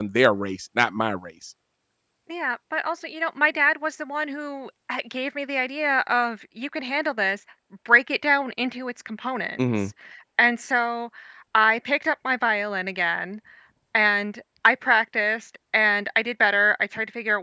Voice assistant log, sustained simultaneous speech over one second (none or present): none